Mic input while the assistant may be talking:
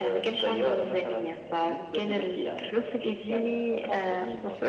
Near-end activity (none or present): present